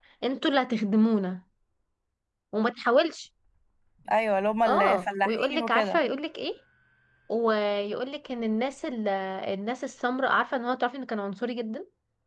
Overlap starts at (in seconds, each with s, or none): 4.7 s